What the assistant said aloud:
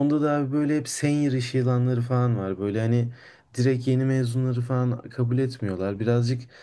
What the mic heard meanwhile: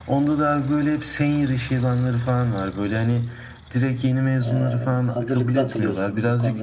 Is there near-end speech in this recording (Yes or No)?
Yes